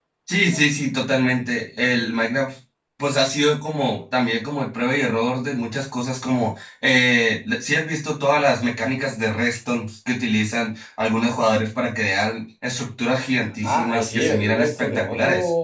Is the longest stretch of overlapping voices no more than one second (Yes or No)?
No